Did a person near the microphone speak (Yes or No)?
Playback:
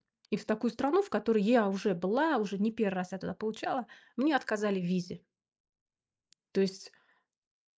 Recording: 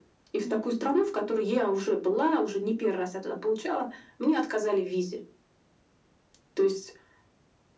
Yes